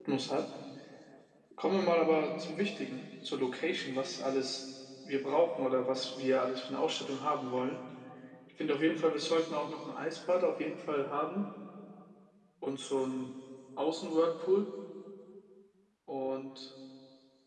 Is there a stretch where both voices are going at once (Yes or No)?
No